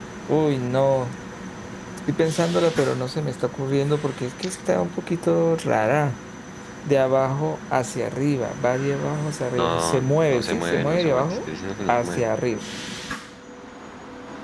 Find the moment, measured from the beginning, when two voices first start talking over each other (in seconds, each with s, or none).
9.6 s